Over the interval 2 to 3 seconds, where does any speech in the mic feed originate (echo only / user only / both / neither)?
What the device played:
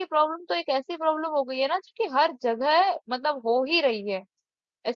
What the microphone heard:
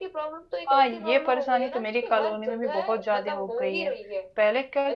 both